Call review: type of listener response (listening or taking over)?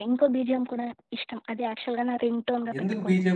taking over